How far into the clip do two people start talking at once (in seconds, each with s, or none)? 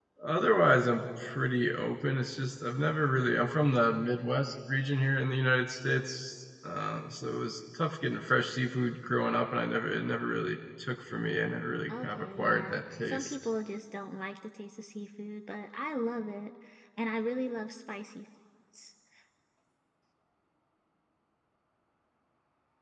11.9 s